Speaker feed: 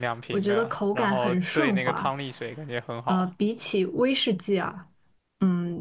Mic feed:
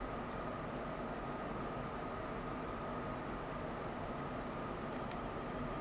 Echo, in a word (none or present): none